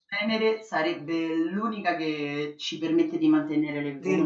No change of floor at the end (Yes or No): No